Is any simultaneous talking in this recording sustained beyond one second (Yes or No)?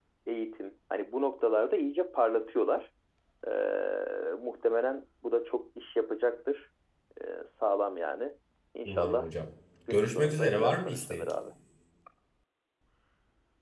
Yes